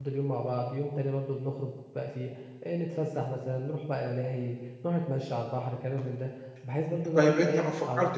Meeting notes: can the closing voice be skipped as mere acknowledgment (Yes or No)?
No